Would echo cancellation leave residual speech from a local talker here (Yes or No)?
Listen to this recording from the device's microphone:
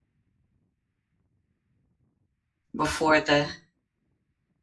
Yes